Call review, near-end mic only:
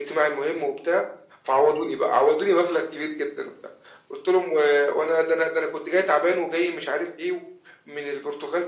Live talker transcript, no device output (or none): none